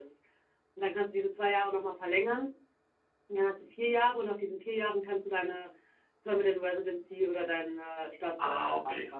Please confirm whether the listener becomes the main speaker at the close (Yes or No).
Yes